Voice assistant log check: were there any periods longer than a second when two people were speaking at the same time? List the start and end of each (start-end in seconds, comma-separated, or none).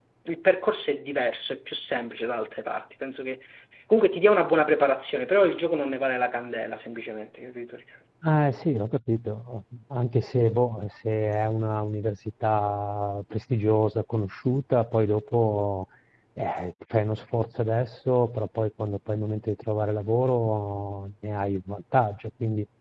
none